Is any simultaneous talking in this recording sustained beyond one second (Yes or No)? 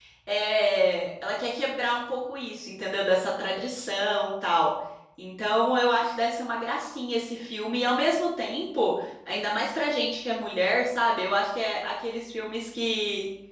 No